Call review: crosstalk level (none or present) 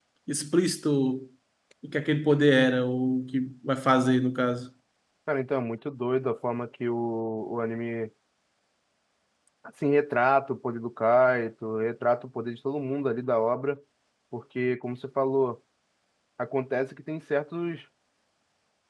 none